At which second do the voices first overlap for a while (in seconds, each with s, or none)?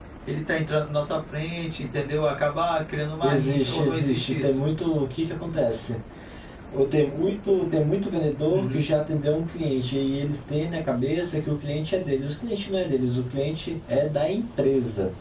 3.2 s